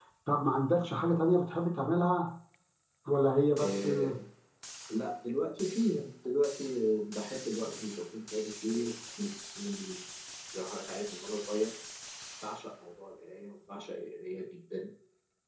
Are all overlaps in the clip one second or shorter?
Yes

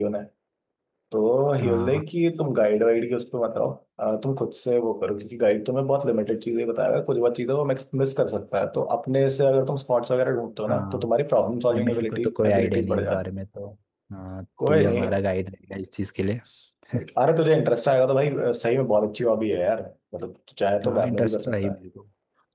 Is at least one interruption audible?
Yes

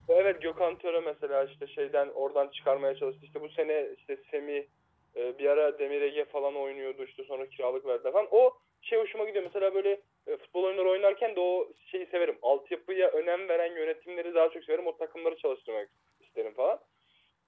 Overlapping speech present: No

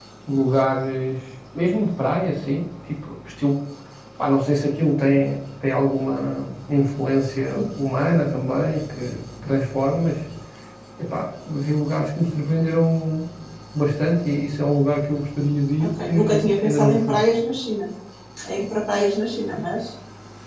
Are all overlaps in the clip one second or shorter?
No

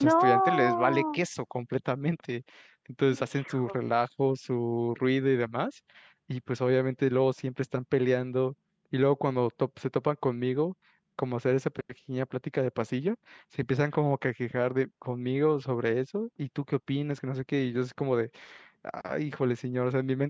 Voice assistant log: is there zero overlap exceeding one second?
No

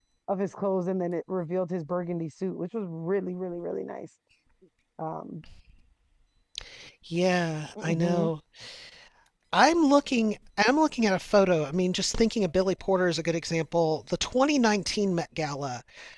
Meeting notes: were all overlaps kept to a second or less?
Yes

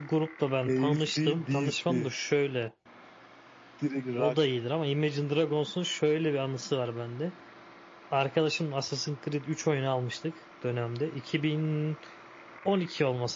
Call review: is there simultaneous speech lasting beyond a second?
Yes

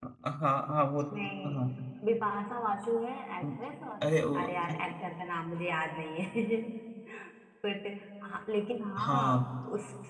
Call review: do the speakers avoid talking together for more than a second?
Yes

